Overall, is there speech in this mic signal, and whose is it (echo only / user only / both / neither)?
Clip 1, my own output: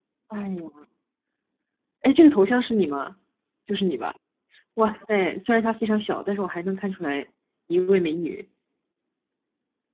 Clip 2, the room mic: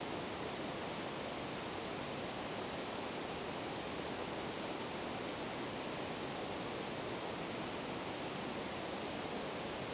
neither